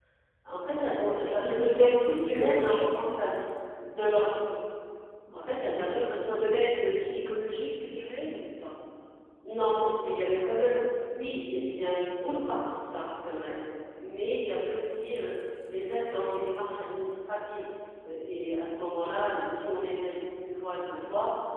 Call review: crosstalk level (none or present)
present